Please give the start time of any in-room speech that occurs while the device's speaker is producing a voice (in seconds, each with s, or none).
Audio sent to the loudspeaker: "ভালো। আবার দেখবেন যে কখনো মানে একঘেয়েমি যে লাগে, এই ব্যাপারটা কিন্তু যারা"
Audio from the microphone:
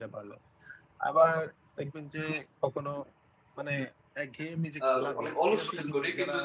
4.8 s